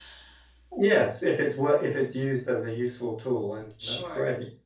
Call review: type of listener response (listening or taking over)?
taking over